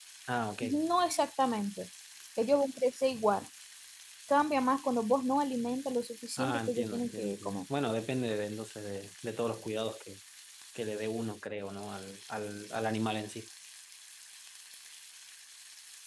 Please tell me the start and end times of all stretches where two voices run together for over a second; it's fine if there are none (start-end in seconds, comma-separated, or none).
6.4-7.6